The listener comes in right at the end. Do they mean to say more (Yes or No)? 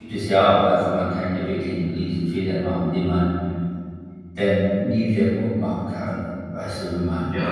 Yes